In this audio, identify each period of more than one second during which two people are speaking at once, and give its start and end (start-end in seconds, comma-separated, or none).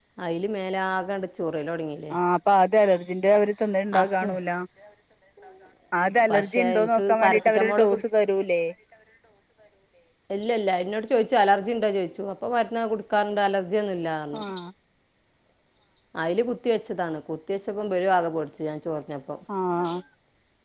6.3-8.0